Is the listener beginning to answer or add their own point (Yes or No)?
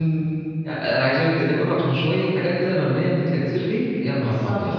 Yes